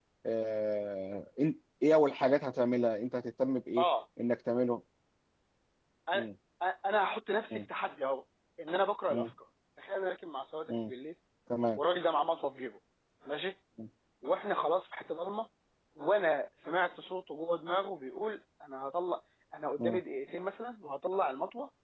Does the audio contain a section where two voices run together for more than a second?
No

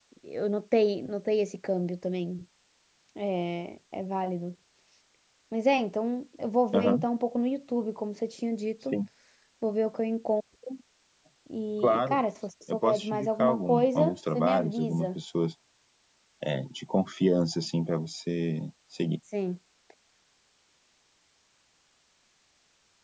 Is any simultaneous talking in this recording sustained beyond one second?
Yes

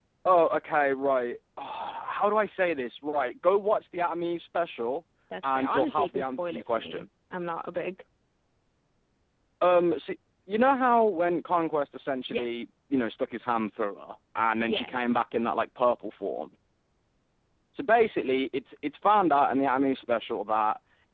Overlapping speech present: Yes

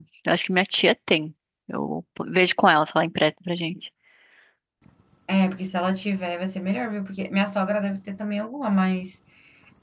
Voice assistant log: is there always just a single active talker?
Yes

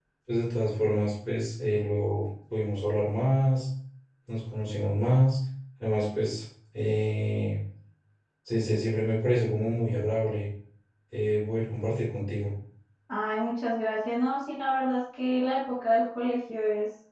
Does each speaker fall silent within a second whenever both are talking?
Yes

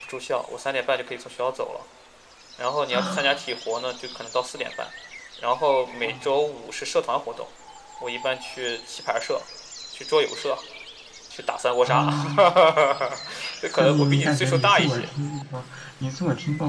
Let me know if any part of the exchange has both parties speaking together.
Yes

